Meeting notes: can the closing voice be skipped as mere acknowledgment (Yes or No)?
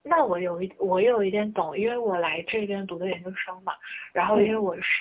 Yes